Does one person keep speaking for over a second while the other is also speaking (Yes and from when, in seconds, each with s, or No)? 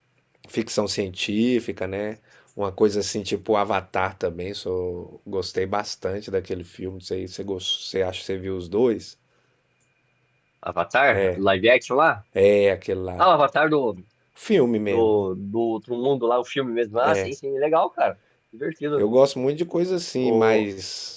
No